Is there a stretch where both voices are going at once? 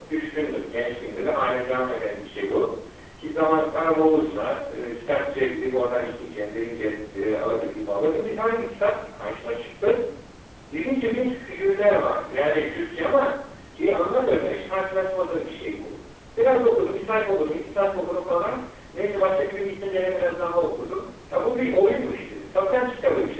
No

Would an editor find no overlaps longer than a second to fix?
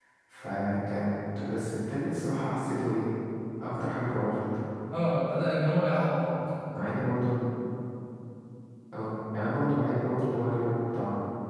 Yes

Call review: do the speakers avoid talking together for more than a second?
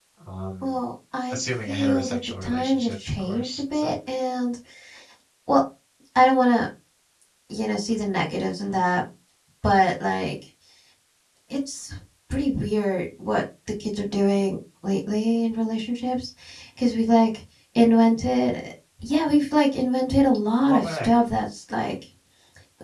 No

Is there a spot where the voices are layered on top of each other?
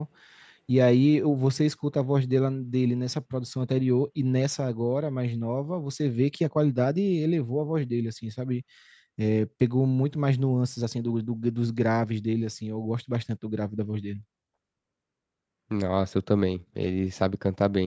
No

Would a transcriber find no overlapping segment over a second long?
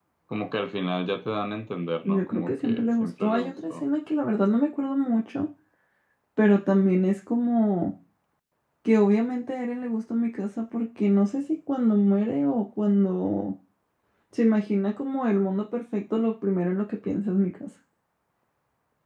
No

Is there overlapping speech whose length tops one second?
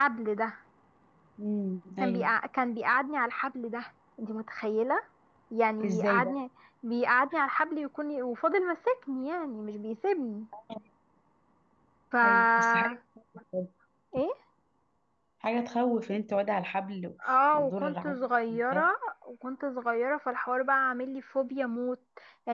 Yes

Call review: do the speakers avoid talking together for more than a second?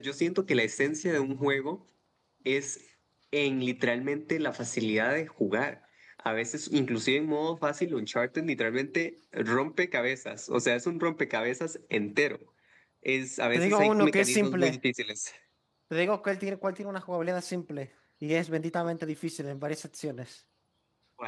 No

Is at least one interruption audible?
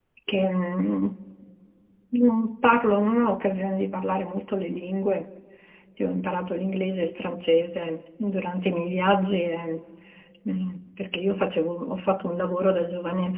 No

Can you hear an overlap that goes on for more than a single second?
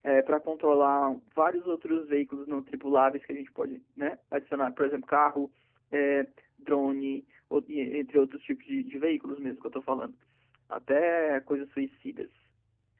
No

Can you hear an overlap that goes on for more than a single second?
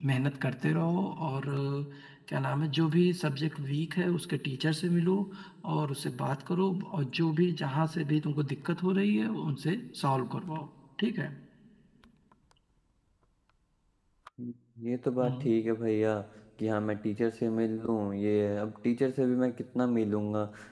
No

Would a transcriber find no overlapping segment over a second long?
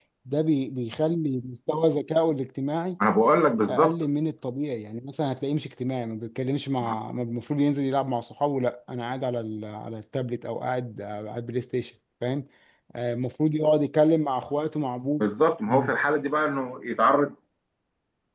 Yes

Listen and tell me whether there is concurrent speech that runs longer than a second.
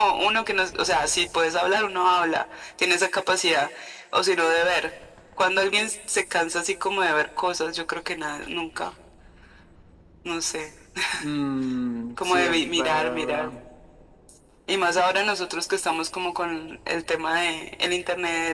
Yes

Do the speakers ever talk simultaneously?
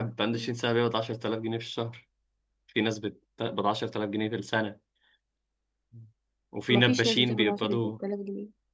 Yes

